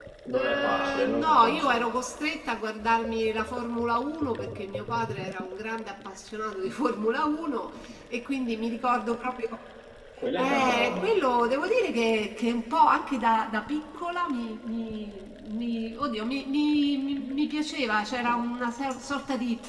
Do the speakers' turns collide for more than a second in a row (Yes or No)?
Yes